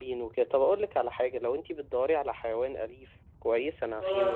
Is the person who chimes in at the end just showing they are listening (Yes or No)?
Yes